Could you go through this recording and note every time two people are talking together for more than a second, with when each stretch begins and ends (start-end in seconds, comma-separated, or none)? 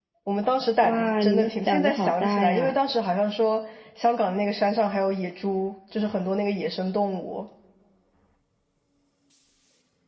0.8-2.7